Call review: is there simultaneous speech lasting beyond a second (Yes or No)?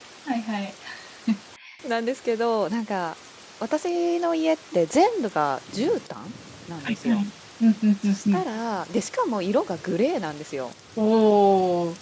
No